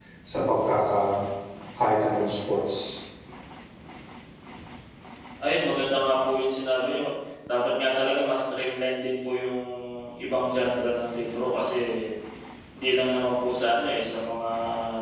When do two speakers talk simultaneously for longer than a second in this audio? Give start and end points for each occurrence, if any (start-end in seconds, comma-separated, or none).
none